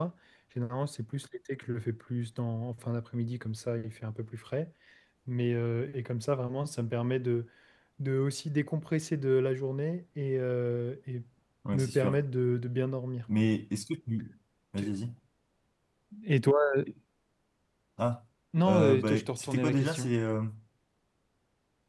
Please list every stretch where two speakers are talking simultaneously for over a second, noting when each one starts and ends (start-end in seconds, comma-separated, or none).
18.6-20.1